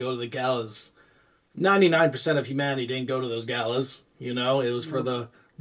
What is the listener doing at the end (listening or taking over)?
listening